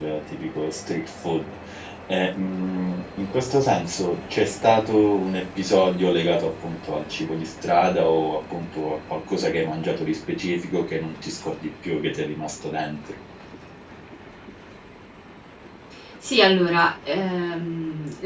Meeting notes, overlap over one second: none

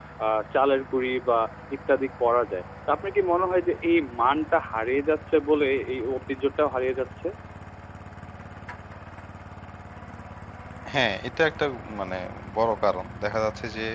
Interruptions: none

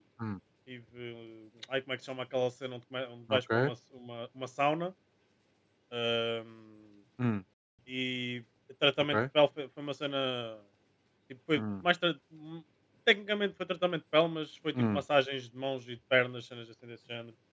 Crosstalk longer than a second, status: none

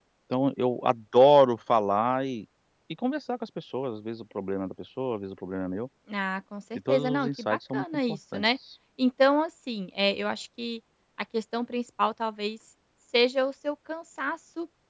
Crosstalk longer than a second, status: present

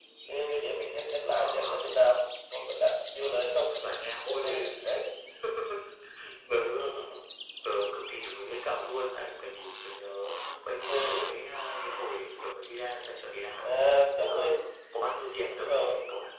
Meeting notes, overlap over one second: none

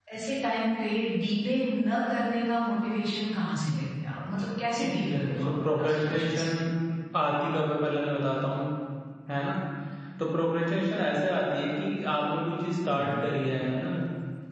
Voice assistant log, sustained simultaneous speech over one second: present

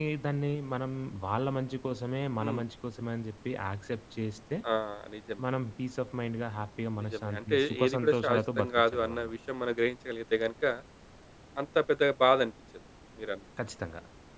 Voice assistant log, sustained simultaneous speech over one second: present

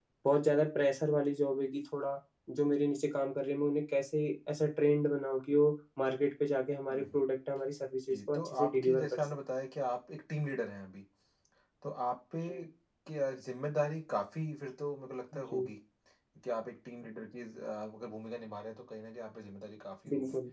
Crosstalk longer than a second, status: present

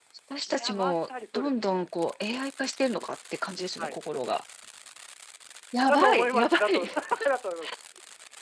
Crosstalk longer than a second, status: present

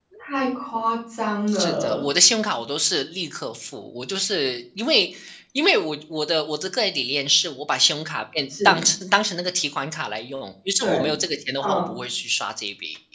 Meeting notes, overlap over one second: none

